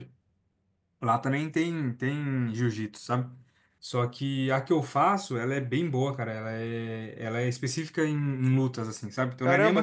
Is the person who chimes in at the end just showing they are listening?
Yes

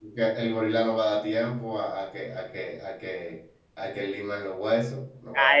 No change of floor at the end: No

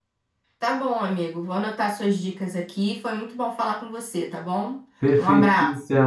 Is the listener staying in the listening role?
No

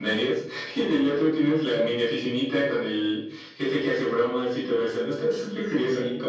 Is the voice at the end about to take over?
Yes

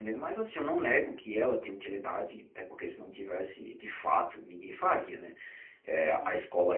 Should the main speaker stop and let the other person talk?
No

